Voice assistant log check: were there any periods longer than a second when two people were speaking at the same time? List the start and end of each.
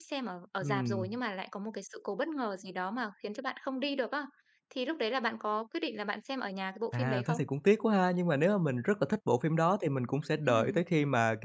none

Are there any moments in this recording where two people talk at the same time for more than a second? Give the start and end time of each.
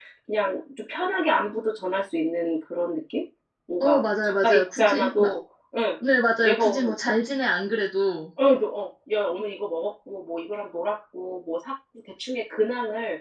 3.8-5.3

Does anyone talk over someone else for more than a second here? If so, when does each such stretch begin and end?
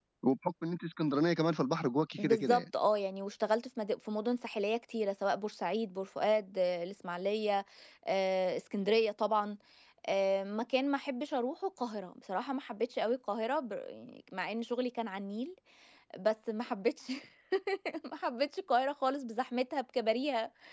none

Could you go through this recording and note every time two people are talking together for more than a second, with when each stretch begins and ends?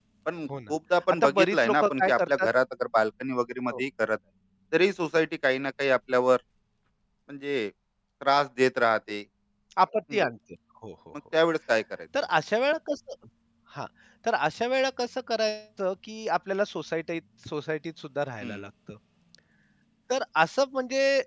1.2-2.5

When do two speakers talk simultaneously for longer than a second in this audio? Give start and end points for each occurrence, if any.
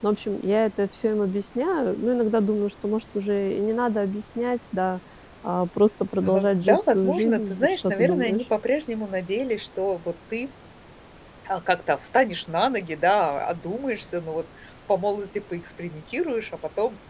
6.2-8.4

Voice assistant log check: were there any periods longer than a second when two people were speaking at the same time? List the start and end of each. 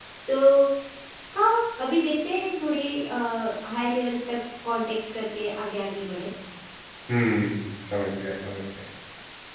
none

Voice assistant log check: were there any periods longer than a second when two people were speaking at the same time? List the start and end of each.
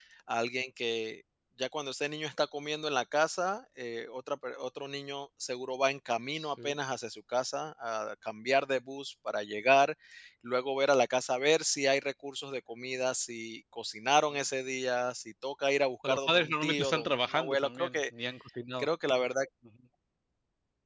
16.0-18.0

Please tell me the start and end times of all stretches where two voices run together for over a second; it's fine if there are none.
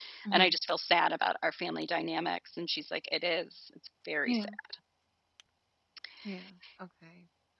none

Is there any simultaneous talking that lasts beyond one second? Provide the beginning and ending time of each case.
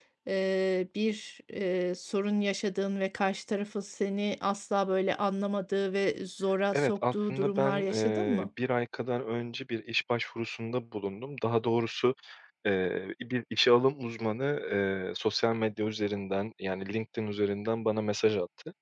6.7-8.5

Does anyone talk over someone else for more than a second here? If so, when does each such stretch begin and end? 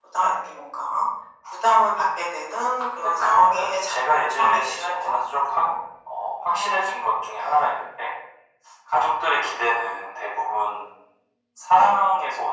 3.0-5.7

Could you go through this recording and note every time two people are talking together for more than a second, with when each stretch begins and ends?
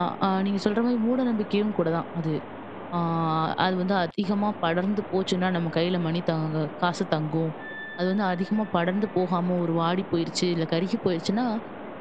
none

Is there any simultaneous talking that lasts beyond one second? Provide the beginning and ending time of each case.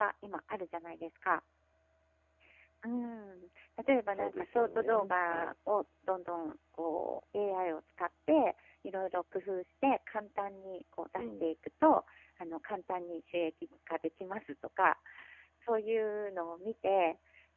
4.1-5.5

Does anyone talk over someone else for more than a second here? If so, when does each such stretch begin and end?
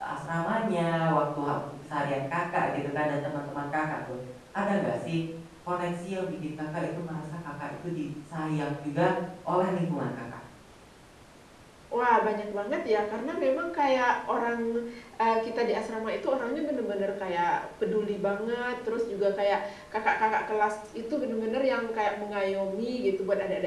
none

